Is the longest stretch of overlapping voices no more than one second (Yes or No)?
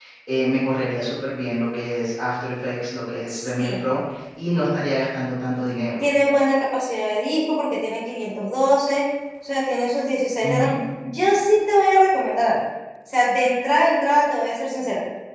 Yes